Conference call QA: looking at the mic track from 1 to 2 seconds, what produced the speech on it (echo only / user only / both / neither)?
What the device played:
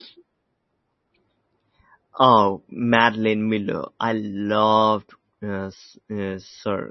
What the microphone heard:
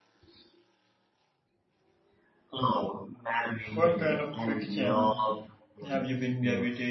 neither